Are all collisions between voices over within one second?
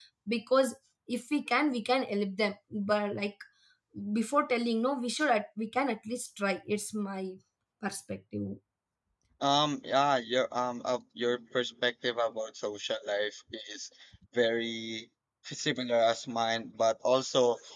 Yes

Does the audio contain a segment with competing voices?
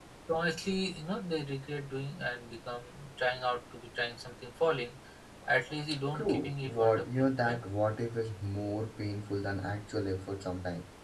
Yes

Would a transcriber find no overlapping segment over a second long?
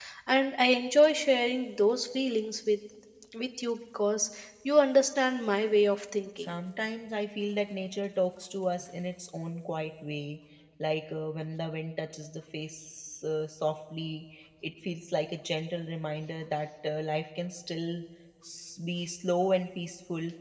Yes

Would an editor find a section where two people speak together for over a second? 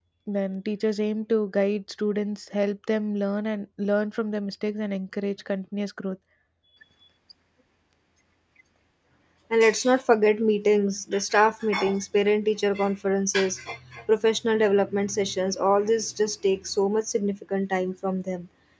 No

